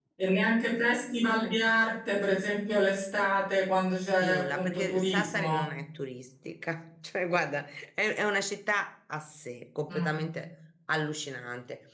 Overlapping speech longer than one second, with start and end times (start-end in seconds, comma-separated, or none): 4.2-5.6